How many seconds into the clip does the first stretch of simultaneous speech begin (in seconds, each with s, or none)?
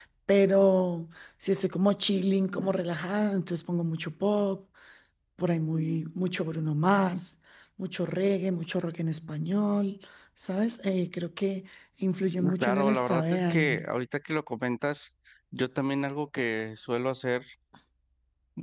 12.4 s